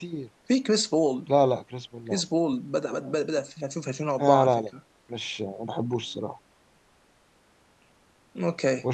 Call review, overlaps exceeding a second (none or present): none